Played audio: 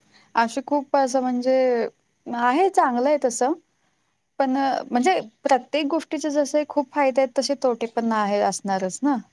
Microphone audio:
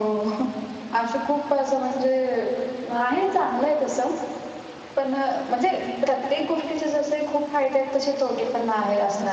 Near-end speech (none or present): none